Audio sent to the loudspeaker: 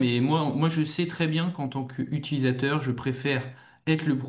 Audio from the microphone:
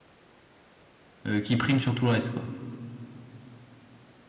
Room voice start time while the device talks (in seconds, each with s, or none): 1.3 s